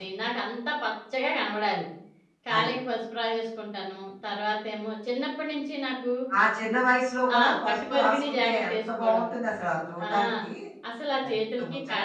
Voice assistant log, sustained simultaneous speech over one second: present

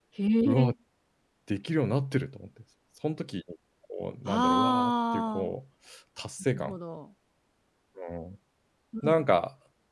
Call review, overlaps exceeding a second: present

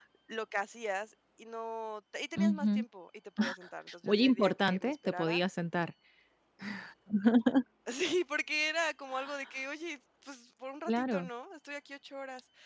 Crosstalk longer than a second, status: present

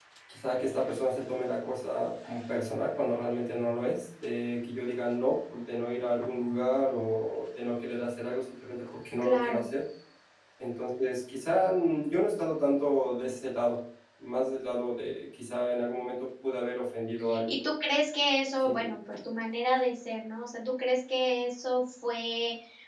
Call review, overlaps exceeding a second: none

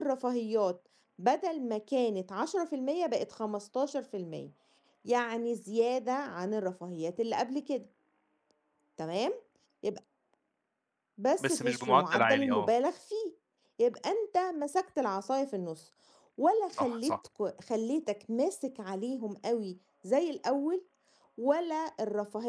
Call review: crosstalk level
present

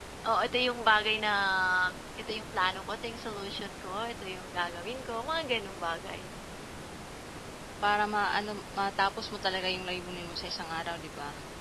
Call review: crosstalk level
none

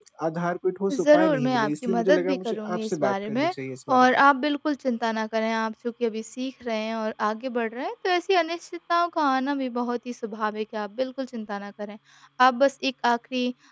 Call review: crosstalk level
present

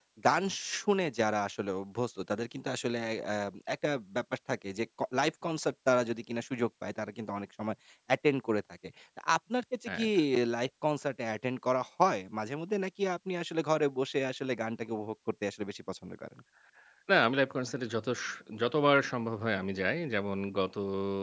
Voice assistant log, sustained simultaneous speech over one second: none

